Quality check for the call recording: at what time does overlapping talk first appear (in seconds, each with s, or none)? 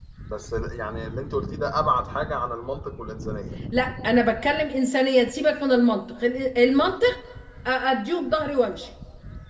none